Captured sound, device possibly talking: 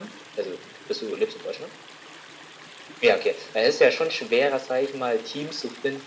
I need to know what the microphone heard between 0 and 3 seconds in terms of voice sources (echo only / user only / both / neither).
echo only